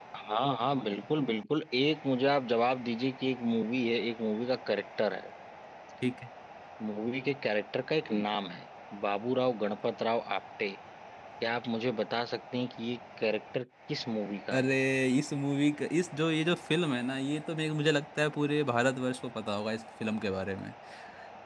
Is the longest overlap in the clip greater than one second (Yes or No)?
No